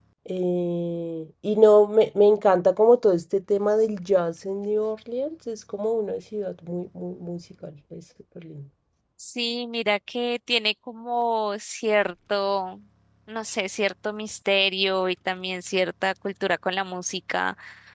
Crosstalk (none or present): none